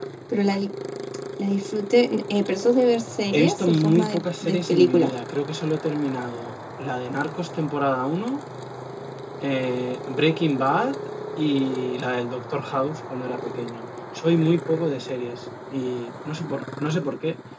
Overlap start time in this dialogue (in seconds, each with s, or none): 3.3 s